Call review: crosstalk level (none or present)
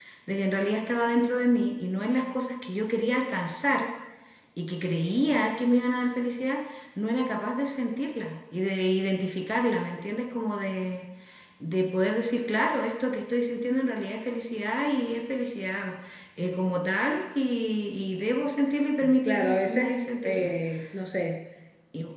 present